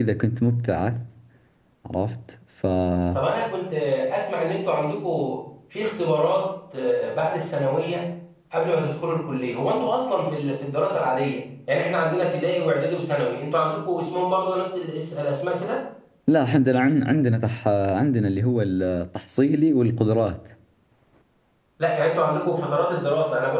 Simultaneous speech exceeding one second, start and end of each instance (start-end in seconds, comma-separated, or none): none